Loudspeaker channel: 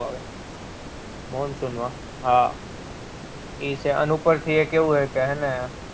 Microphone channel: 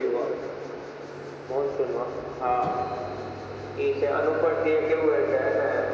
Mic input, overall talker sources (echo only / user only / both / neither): echo only